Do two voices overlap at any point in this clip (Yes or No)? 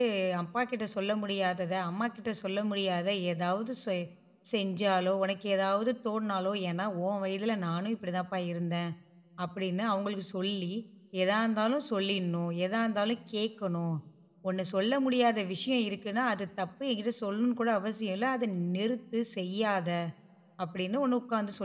No